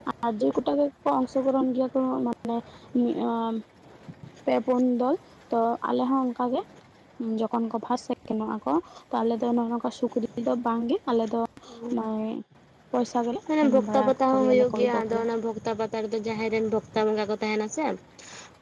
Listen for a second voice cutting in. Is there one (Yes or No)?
Yes